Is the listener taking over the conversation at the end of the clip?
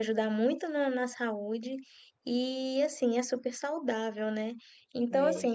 No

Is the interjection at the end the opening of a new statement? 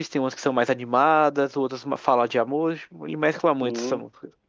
Yes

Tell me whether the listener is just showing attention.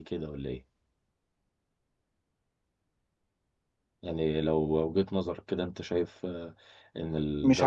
No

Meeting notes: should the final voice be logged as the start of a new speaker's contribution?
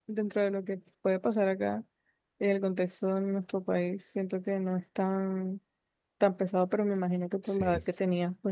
No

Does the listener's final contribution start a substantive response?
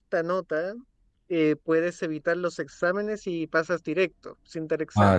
Yes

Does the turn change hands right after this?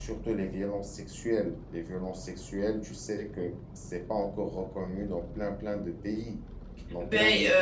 Yes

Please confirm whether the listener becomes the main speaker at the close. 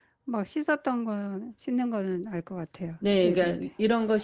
Yes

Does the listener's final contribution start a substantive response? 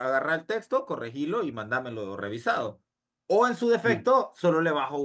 No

